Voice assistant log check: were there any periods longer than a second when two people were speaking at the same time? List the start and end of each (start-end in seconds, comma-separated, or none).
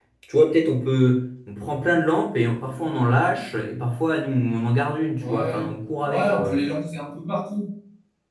none